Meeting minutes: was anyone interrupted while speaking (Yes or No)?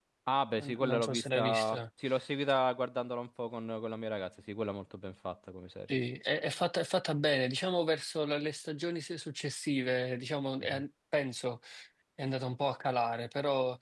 Yes